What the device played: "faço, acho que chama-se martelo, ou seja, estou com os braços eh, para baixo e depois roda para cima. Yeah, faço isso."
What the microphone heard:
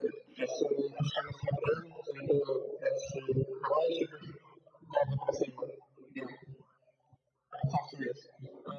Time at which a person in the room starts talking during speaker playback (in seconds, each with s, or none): none